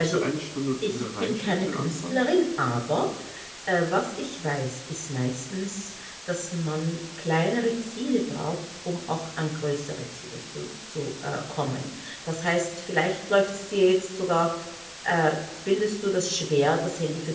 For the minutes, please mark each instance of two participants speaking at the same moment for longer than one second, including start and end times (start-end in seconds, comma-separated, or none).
0.8-2.2